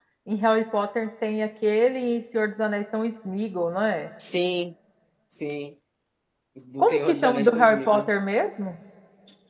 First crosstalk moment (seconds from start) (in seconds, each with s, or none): 6.8 s